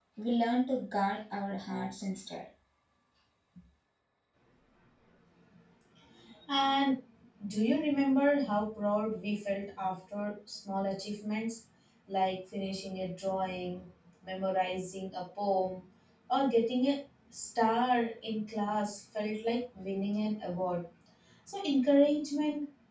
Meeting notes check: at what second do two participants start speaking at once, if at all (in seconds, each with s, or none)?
none